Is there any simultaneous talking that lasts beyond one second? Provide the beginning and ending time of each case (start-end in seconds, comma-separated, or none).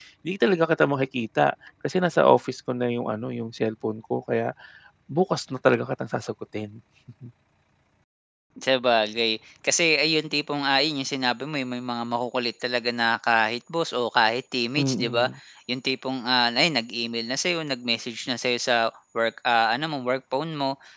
none